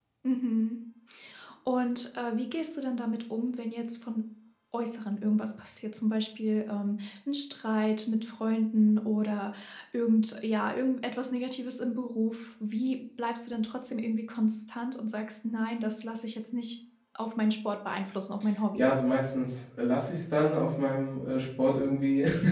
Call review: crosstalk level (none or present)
none